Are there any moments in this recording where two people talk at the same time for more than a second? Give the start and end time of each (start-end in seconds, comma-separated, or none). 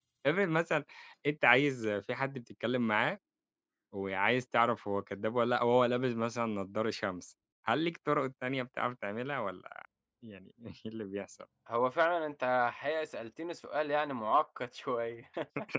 none